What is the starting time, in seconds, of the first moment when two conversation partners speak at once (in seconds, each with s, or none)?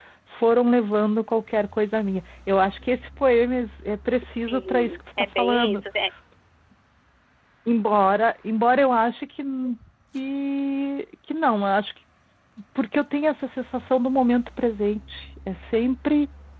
4.5 s